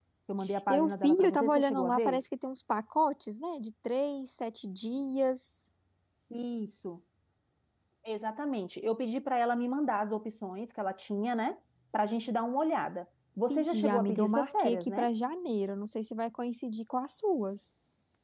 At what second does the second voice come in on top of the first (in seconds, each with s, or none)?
0.7 s